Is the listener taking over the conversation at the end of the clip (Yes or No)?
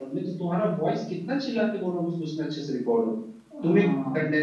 No